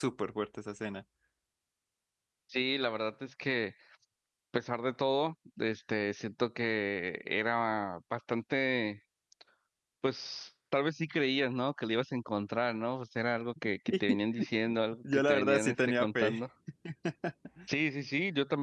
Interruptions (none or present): present